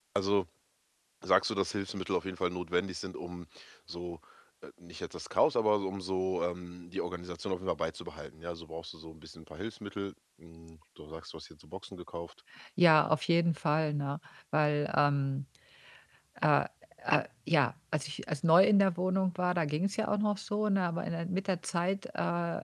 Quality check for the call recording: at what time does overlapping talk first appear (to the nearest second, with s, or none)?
none